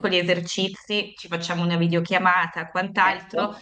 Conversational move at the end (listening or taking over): listening